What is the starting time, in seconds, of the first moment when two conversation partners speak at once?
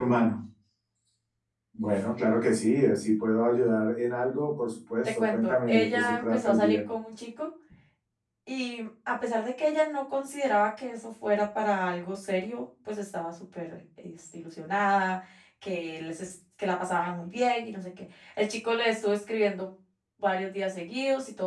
5.2 s

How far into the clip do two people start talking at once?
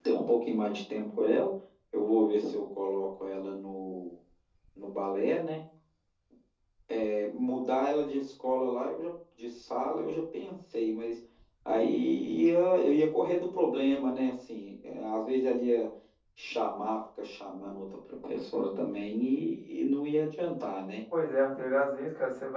none

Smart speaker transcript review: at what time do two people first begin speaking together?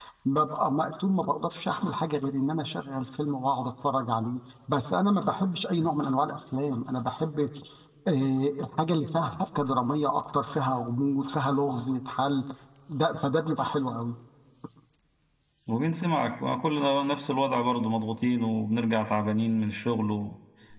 none

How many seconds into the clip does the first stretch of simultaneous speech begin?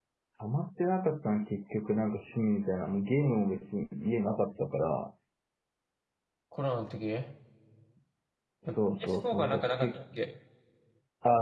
8.7 s

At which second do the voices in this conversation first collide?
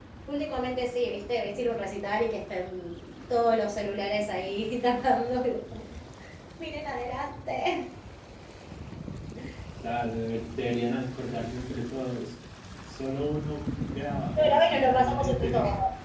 14.3 s

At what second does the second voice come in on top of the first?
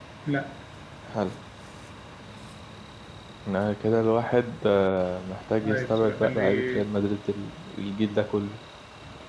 5.6 s

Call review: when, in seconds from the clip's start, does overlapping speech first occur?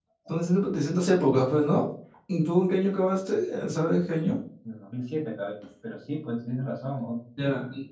none

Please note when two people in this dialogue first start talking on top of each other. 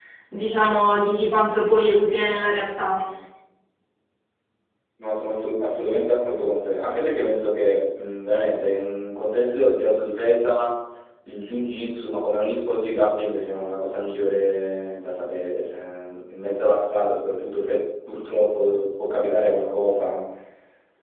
none

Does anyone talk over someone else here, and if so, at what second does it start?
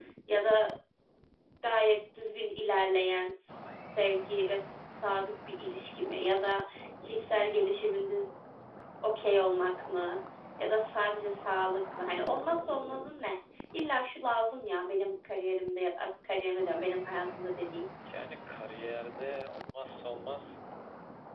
none

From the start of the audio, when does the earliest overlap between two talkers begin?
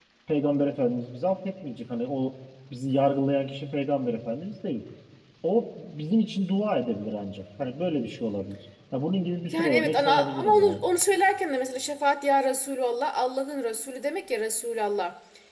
9.5 s

